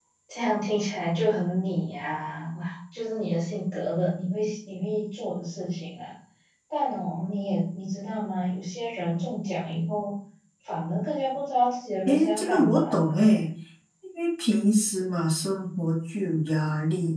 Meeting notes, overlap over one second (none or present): present